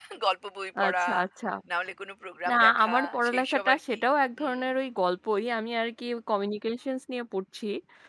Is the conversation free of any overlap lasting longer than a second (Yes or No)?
No